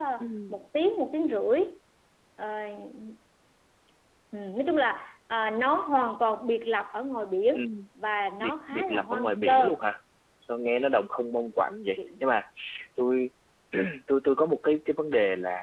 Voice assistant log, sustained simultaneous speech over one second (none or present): present